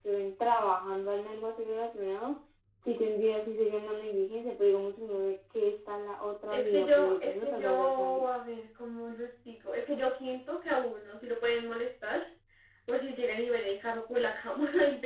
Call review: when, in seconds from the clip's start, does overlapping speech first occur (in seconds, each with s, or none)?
6.5 s